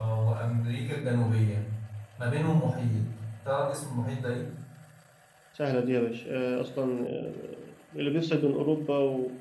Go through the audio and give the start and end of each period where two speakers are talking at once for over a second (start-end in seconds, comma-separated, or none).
none